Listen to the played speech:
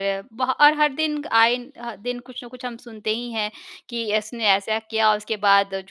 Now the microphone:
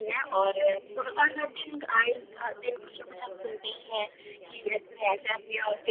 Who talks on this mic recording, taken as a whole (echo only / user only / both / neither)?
both